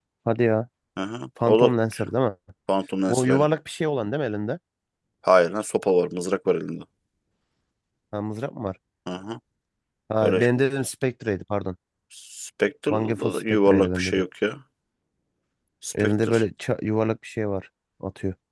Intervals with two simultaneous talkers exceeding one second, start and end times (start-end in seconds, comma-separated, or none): 12.9-14.2